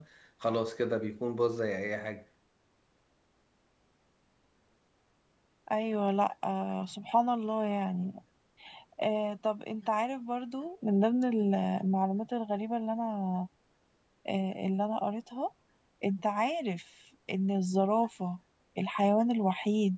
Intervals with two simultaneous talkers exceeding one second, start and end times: none

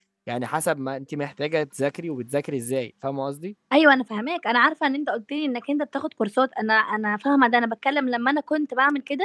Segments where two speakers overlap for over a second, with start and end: none

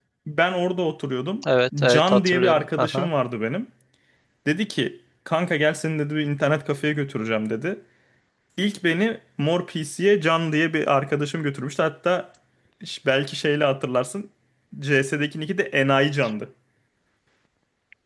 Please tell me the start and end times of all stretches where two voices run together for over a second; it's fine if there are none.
1.8-3.1

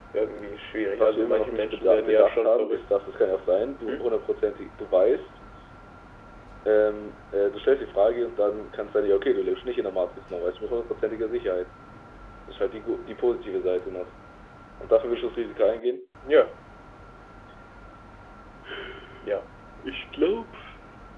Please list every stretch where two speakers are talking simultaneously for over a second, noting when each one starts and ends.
0.9-2.9

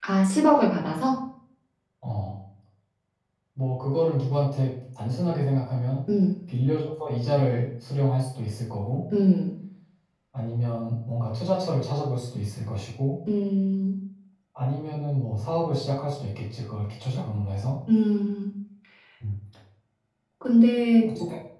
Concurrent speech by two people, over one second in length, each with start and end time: none

